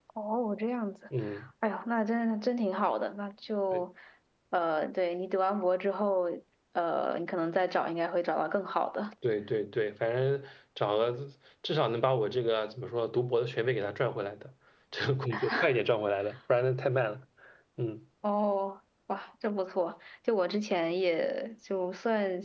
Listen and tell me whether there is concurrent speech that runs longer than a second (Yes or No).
No